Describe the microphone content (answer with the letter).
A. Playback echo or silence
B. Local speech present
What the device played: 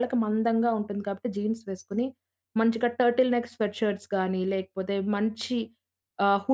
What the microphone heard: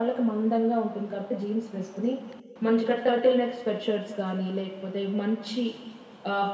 A